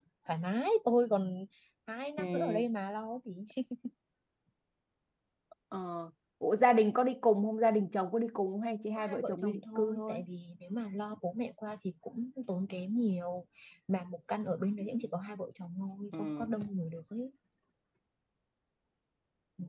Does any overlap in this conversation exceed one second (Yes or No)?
Yes